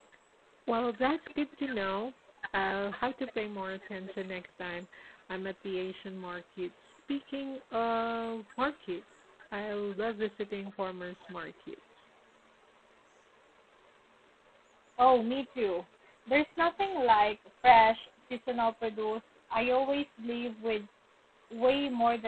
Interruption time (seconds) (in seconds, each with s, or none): none